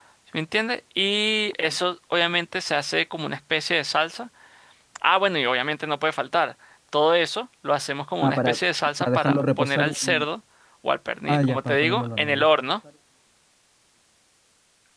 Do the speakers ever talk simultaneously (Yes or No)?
Yes